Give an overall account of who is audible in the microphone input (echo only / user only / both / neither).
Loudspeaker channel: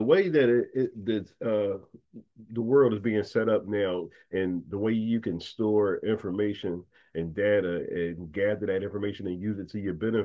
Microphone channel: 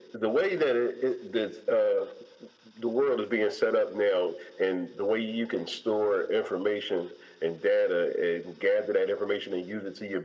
echo only